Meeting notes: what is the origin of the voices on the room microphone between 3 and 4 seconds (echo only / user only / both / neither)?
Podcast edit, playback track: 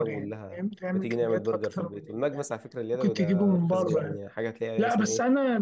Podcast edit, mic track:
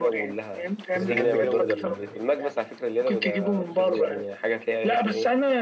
echo only